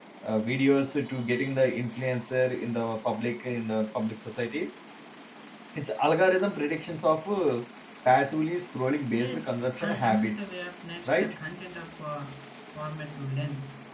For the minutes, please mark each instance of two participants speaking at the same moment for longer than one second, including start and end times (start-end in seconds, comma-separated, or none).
9.1-10.4